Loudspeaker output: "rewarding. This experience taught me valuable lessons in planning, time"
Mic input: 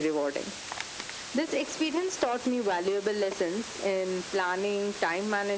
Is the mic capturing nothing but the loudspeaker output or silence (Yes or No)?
Yes